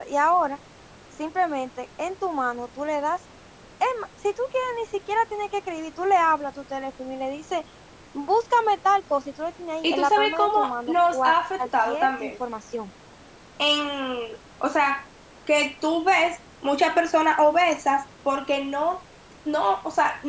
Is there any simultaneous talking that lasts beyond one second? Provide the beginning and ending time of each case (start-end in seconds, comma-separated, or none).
9.8-12.3